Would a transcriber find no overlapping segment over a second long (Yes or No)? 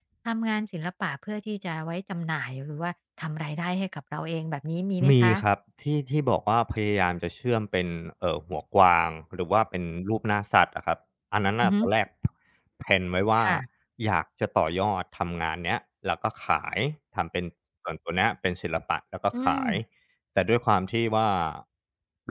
Yes